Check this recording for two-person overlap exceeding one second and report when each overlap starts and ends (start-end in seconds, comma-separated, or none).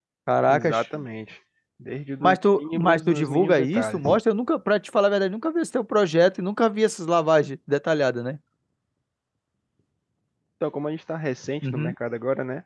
2.2-4.0